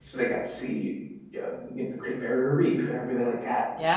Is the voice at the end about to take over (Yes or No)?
Yes